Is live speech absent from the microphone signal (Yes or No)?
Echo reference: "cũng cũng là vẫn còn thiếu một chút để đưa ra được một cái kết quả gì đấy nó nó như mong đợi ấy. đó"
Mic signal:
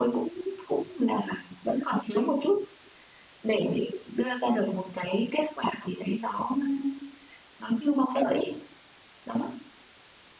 Yes